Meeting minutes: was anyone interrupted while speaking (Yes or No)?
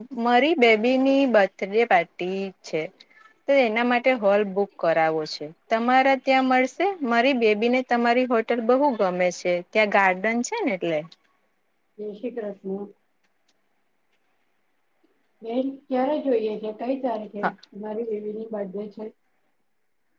No